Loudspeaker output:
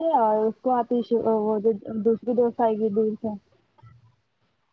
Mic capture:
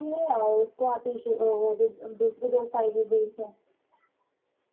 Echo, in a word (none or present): present